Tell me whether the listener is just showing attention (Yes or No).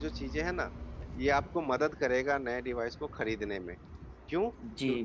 Yes